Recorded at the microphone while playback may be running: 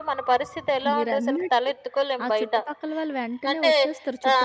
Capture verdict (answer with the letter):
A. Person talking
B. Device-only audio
A